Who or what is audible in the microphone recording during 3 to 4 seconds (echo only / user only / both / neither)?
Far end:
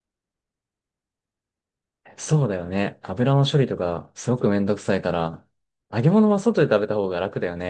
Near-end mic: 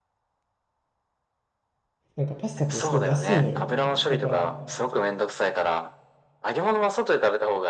both